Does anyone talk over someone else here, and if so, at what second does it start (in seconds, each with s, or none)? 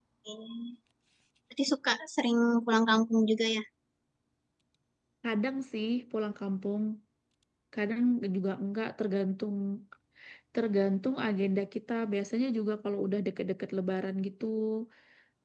none